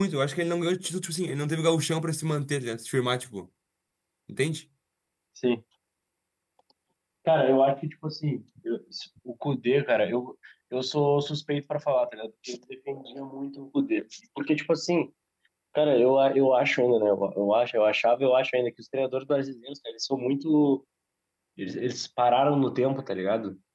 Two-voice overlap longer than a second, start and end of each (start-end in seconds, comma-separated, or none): none